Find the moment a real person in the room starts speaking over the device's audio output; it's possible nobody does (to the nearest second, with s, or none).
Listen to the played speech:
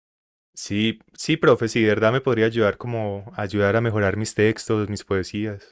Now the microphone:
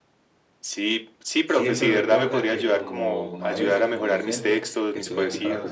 1 s